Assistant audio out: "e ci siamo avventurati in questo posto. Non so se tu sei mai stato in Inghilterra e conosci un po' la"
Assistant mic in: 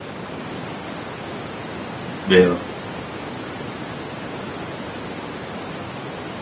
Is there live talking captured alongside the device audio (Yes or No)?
Yes